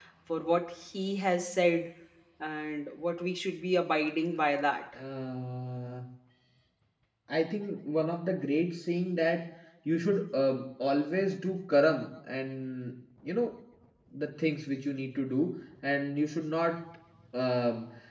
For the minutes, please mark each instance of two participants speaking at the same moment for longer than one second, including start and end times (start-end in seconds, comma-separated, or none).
none